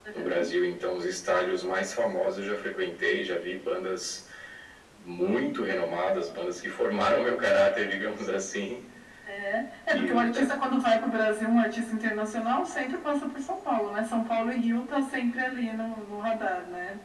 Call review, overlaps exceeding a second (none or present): none